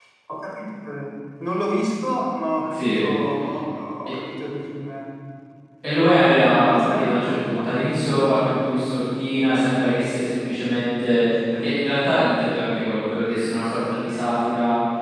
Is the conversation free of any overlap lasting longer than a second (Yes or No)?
No